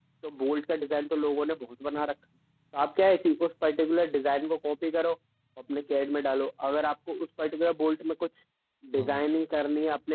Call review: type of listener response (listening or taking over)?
listening